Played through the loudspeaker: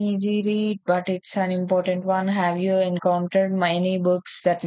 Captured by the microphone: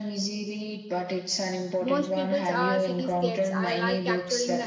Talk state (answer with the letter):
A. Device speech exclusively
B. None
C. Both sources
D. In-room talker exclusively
C